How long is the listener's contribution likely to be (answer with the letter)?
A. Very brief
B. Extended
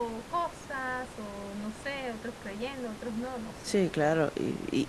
B